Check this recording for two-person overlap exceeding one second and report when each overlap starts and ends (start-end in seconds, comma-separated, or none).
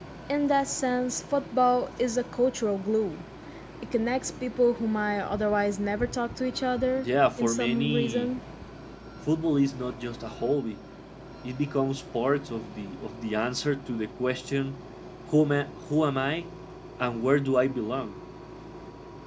7.0-8.3